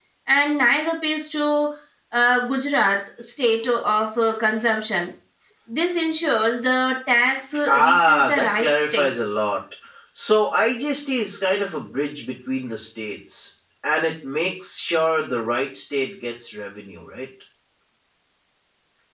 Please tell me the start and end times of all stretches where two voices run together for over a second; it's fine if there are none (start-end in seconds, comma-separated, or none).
7.7-9.1